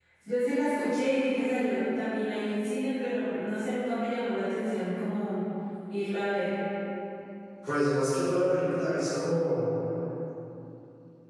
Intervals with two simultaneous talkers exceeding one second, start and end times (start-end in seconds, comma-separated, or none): none